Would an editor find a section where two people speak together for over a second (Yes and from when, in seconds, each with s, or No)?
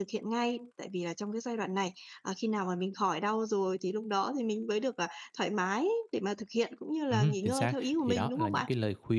Yes, from 7.1 s